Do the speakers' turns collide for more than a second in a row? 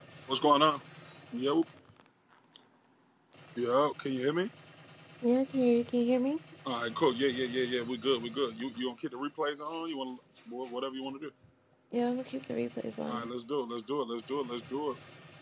No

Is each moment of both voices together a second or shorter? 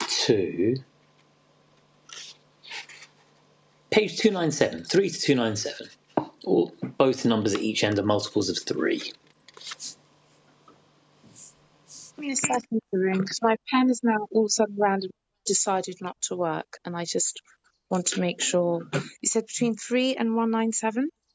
Yes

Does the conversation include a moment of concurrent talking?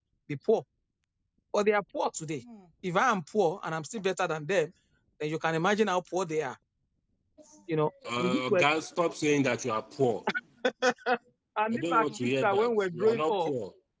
Yes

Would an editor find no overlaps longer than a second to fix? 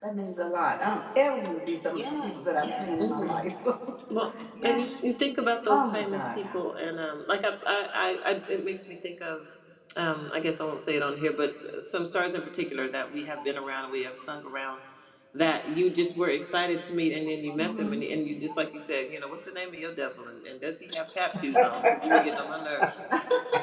No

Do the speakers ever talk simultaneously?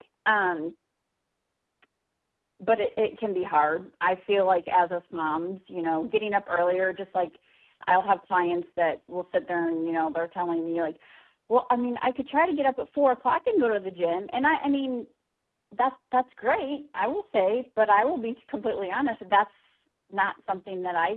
No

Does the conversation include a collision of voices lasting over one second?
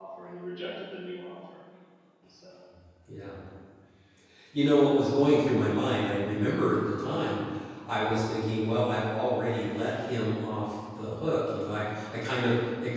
No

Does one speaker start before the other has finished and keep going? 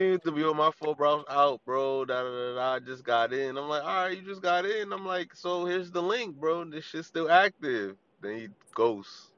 No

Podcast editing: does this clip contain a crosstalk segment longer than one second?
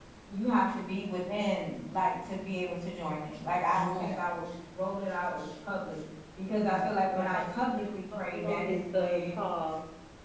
Yes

